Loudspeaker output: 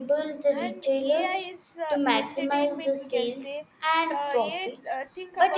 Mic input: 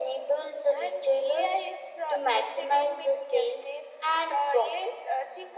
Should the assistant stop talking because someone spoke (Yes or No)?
No